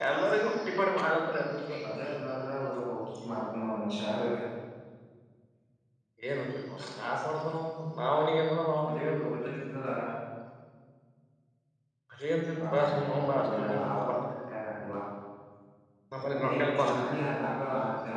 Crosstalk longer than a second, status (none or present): present